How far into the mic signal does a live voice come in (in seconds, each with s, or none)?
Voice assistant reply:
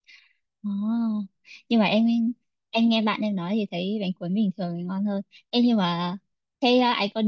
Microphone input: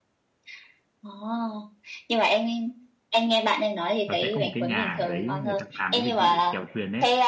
4.1 s